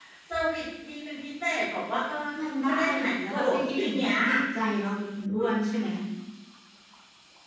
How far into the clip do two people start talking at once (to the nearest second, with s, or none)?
2 s